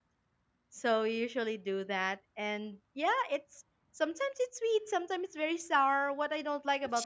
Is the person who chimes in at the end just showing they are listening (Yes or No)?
Yes